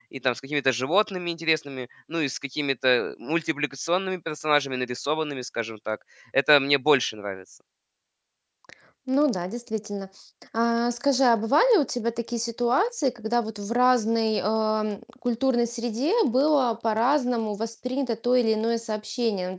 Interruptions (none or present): none